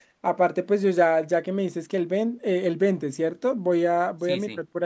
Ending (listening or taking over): listening